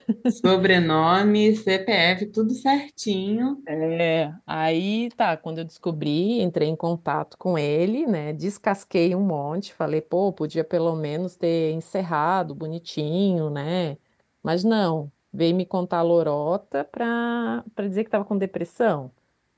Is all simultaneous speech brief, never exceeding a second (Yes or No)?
Yes